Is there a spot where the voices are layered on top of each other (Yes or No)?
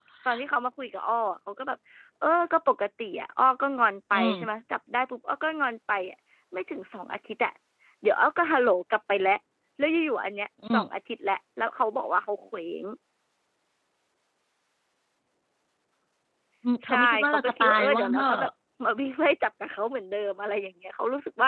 Yes